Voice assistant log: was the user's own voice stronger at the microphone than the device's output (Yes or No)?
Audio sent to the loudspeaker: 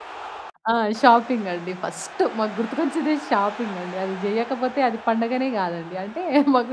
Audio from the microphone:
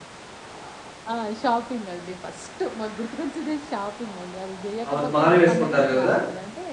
Yes